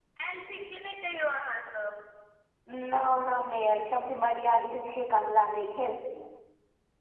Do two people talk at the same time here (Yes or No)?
No